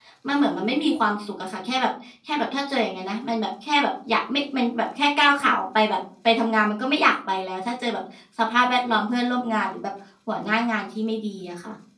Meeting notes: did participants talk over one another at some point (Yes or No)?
No